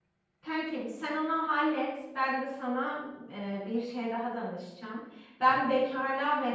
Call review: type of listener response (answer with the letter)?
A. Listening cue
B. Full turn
A